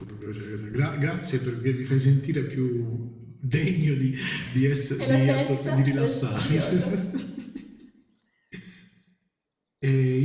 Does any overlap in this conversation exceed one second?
Yes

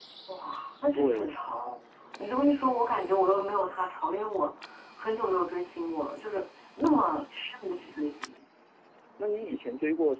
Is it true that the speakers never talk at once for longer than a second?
Yes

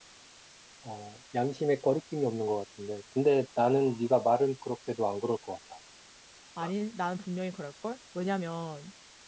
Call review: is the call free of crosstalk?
Yes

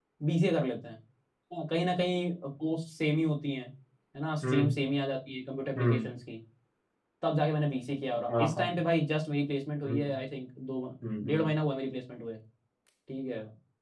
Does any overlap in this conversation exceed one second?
No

